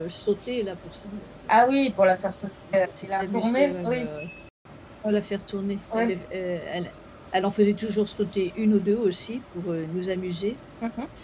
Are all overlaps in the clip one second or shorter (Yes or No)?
No